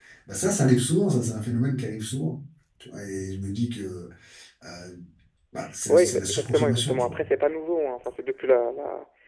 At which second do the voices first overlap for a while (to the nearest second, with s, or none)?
6 s